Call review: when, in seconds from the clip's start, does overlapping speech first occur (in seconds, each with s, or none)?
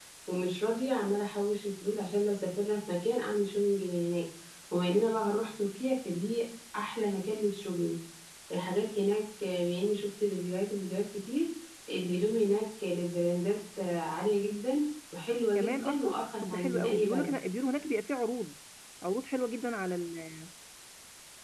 15.6 s